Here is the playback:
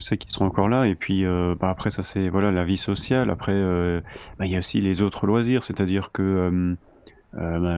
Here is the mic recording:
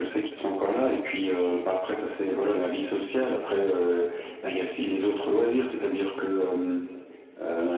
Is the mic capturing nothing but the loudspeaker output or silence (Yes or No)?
Yes